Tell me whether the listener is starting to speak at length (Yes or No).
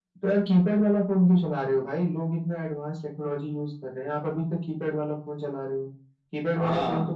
No